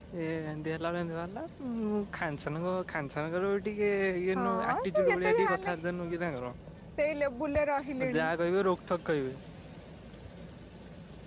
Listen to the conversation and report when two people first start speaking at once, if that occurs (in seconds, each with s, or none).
4.4 s